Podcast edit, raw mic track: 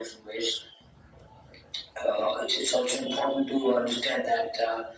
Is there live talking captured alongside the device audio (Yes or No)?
No